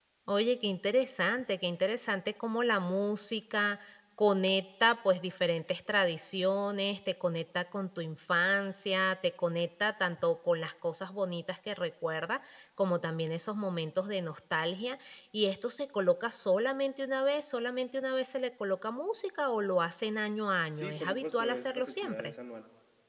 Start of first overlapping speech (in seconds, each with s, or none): 20.8 s